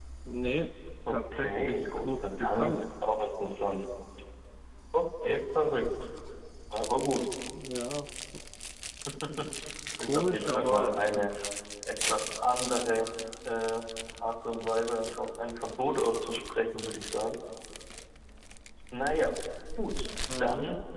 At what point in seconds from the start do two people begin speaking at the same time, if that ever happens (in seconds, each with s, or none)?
1.1 s